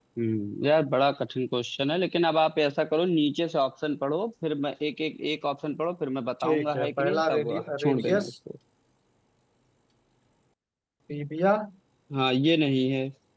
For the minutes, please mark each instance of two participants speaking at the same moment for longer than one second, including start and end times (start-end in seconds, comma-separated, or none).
6.4-8.3